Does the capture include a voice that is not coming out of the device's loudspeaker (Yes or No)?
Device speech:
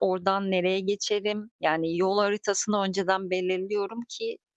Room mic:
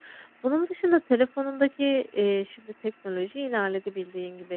Yes